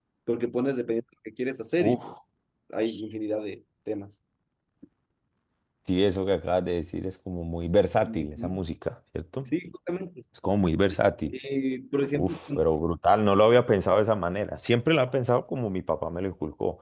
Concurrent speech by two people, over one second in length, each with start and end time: none

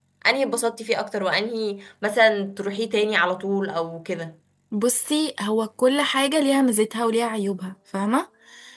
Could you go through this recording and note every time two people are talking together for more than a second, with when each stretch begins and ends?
none

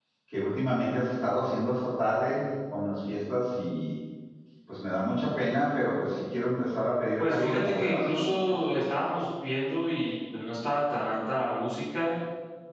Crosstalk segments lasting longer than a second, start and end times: 7.2-8.8

